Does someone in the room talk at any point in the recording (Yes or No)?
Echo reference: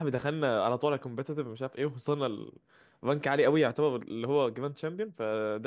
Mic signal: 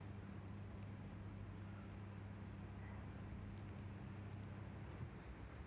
No